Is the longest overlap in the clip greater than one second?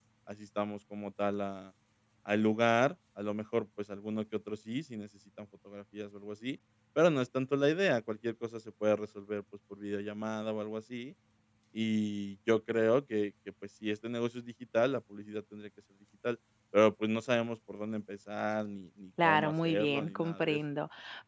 Yes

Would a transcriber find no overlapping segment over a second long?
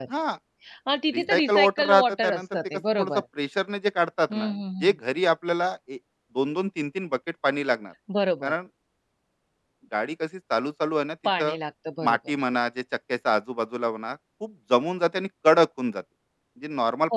No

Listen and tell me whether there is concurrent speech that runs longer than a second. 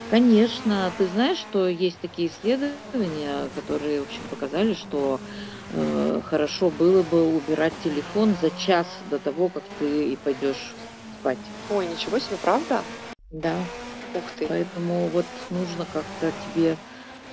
No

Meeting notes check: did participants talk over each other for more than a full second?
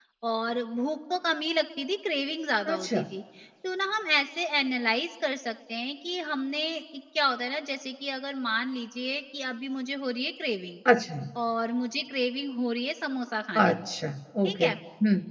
No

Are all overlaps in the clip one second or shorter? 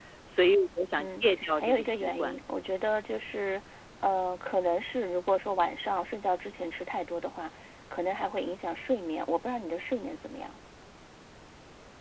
No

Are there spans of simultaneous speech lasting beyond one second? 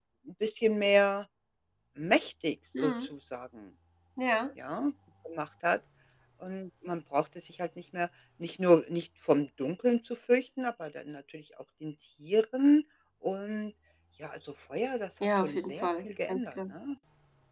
Yes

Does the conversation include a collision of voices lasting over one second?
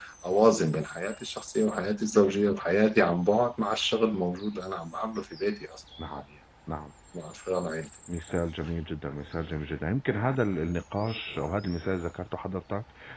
No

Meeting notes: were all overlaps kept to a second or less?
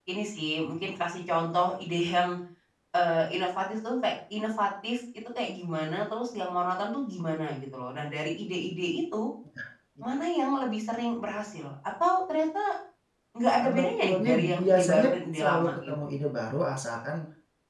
No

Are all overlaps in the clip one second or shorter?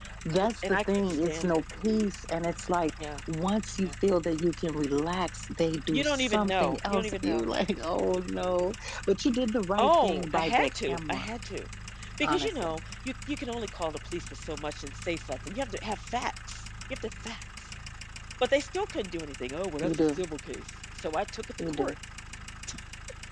No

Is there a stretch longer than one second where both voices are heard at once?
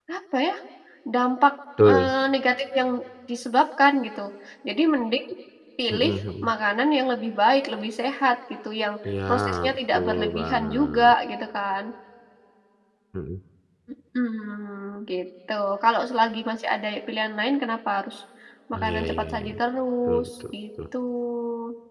Yes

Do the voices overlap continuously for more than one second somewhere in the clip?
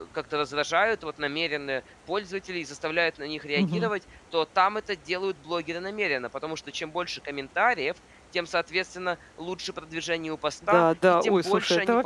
Yes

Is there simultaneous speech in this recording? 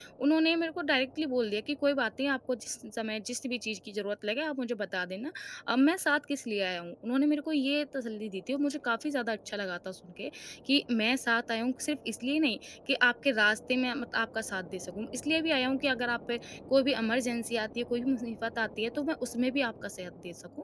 No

